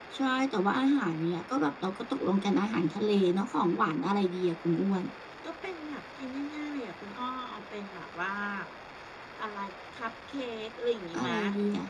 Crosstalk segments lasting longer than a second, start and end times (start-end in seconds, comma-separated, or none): none